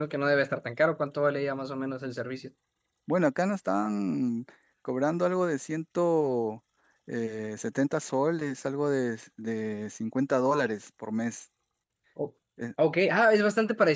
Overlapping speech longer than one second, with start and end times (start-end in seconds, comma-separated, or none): none